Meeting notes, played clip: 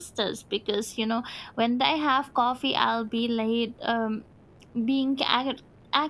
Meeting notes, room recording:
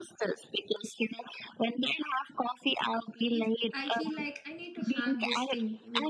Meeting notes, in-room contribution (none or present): present